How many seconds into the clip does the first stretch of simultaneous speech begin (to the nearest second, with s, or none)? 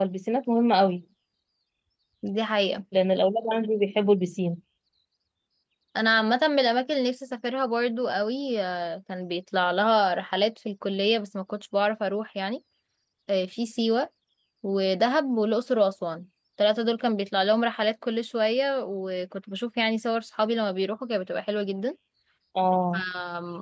none